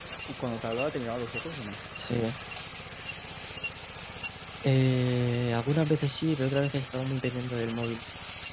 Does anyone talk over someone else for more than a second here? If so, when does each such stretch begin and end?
none

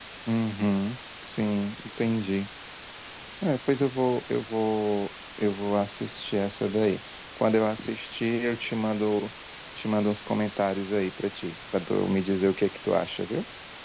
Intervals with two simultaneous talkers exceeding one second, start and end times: none

